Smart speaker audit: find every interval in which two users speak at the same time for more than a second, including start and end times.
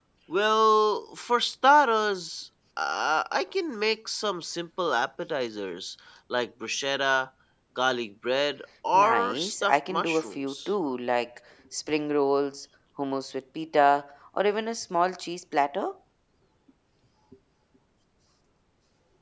8.9-10.7

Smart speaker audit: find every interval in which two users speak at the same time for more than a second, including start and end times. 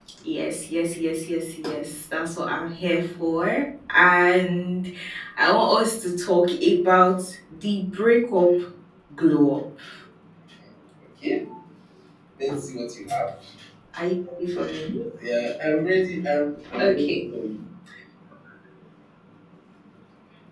none

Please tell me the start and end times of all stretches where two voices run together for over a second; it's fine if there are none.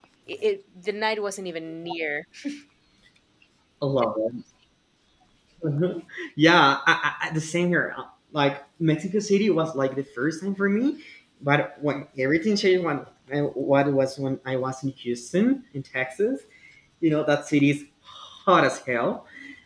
none

